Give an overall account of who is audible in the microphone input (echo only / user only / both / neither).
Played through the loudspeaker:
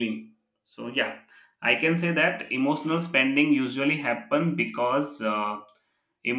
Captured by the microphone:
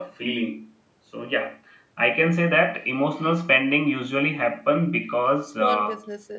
both